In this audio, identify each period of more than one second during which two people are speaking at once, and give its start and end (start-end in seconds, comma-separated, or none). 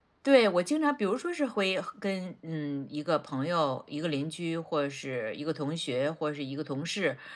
none